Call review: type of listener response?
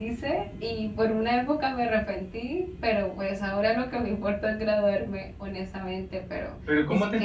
taking over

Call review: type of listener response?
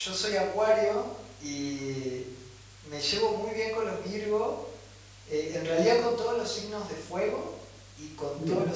listening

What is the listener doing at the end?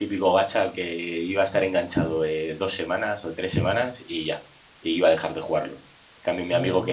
listening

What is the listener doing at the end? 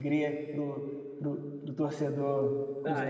taking over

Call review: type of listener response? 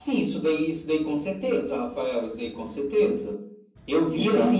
listening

